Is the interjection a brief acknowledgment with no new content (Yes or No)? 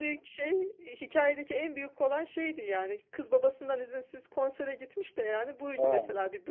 Yes